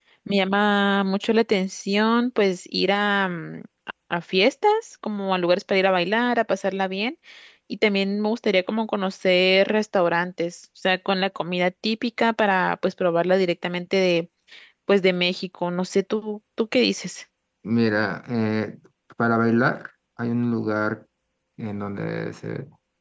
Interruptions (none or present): none